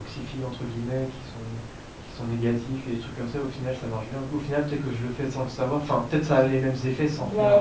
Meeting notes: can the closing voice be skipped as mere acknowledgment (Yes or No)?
No